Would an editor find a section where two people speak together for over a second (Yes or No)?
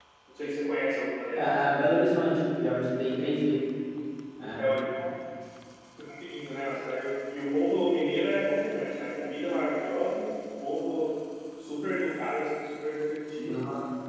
No